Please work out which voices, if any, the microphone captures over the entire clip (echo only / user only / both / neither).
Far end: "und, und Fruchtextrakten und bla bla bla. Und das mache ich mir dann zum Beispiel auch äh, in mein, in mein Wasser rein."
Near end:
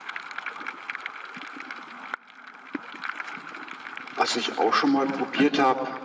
user only